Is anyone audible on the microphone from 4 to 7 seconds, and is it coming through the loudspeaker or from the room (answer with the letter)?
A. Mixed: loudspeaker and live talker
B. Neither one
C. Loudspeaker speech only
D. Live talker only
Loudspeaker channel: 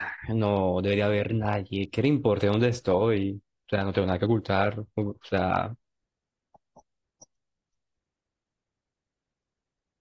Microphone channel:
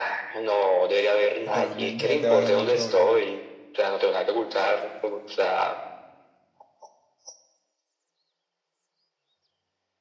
C